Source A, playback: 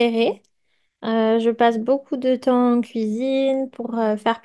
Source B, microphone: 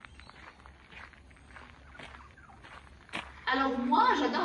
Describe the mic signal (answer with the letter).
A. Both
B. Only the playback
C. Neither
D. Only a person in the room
D